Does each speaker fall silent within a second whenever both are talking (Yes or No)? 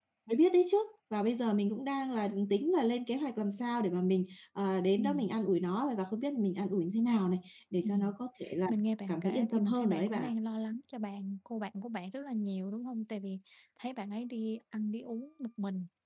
No